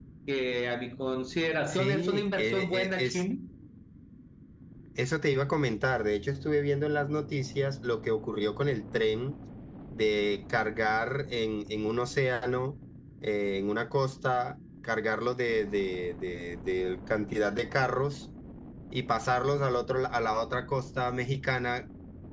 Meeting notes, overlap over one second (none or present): present